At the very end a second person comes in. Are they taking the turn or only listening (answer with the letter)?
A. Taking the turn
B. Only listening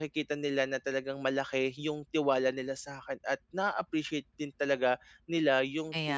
B